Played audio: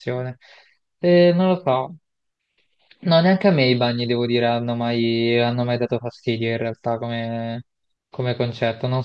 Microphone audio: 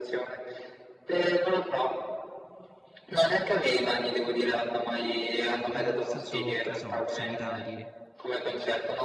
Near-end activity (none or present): present